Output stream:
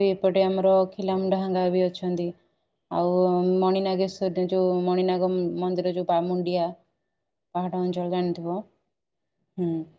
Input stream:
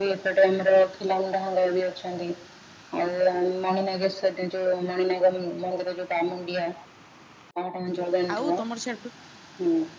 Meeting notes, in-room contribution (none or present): present